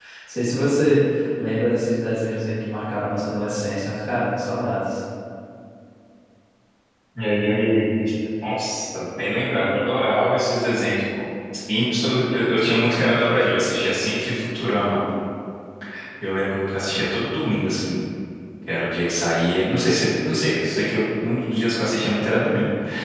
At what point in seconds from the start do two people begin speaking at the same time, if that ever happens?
none

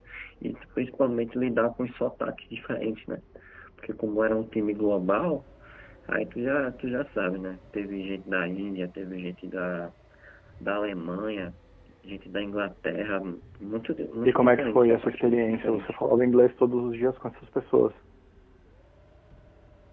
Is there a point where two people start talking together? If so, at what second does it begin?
14.2 s

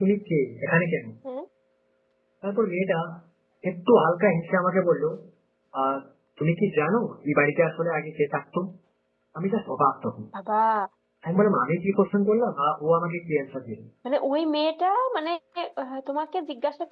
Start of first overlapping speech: none

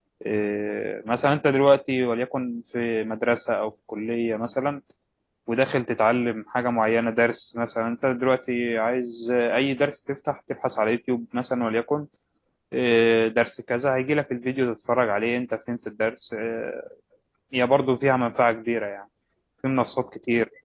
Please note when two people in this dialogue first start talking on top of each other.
none

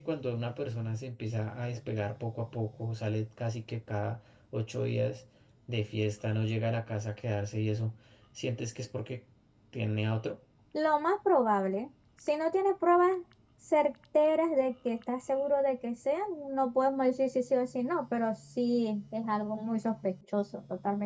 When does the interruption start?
none

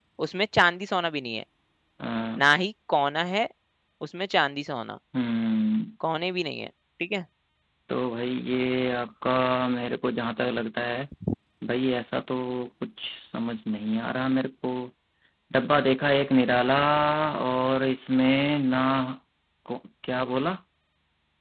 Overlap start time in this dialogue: none

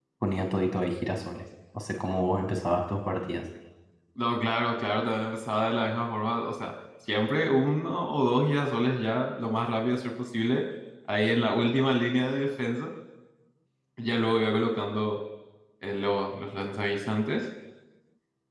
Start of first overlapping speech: none

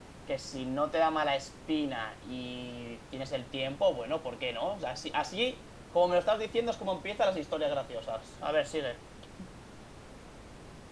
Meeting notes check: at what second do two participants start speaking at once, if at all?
none

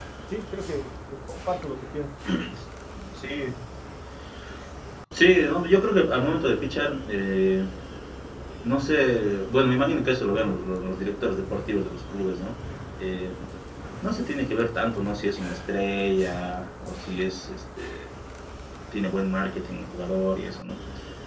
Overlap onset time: none

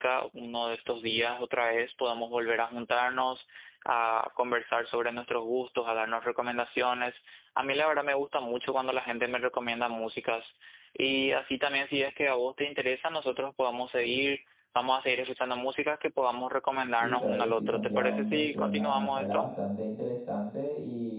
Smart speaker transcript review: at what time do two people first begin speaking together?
17.0 s

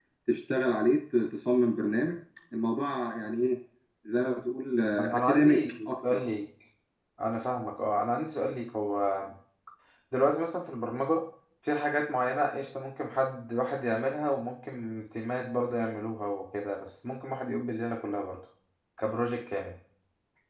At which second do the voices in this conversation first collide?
5.0 s

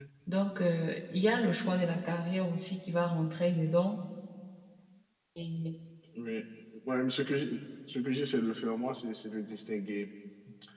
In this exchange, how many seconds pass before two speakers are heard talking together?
none

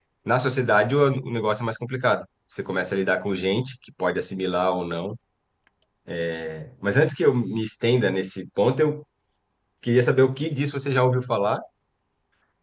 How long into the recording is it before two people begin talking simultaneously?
none

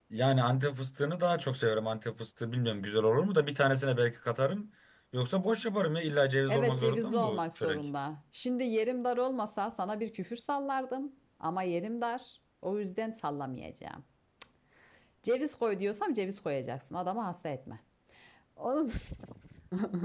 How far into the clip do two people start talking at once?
6.5 s

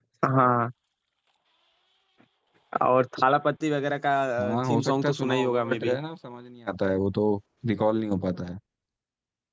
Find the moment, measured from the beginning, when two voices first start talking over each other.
4.4 s

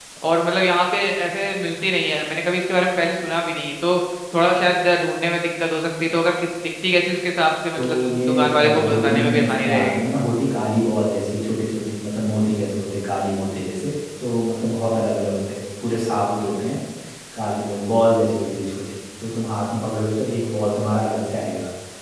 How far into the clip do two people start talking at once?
7.8 s

